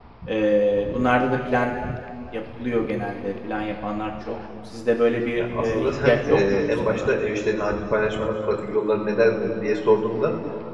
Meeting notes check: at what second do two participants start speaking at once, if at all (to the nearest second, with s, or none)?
5 s